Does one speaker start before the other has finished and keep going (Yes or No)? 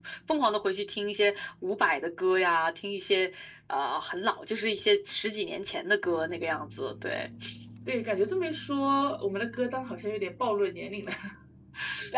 No